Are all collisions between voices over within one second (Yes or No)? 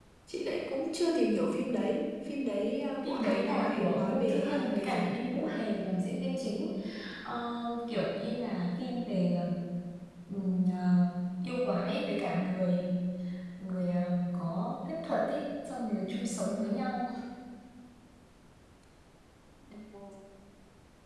No